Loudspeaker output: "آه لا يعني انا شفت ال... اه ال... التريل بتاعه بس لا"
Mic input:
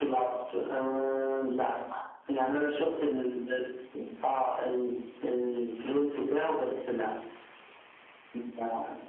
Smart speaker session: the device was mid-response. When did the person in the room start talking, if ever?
none

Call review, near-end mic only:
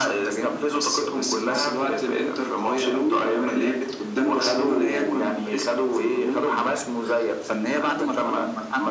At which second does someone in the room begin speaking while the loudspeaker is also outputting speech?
none

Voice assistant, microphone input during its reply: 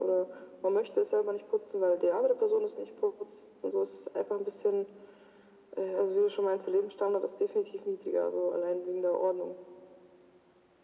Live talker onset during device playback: none

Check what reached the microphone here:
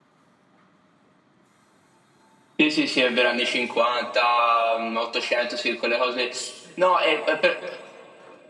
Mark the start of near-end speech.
3 s

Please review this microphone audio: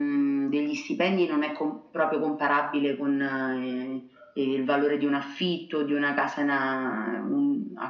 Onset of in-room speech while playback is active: none

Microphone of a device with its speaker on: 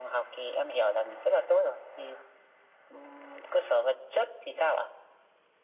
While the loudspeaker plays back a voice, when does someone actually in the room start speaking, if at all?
none

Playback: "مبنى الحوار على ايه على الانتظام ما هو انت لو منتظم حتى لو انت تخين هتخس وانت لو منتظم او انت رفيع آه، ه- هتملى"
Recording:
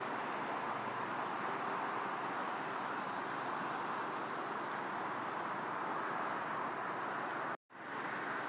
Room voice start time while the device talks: none

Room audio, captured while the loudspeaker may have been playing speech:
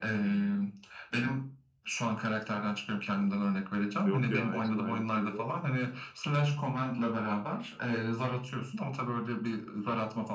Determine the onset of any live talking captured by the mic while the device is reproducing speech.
4 s

